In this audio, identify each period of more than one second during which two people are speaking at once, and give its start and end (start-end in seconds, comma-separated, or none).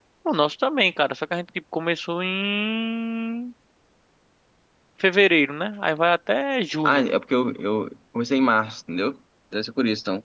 none